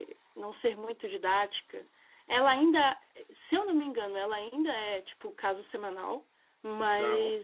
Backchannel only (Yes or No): Yes